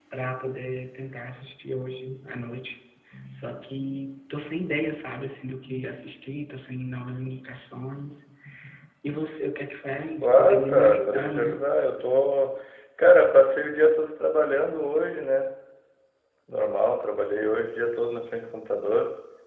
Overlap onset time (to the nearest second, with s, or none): 10 s